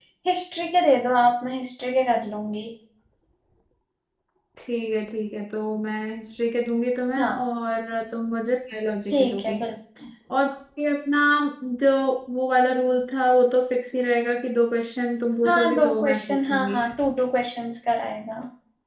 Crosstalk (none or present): present